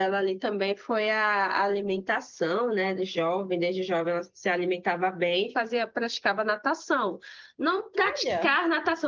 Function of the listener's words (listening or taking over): listening